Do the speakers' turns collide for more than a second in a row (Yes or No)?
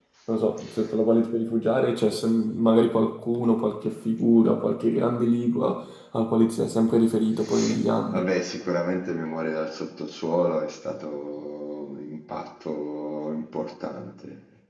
No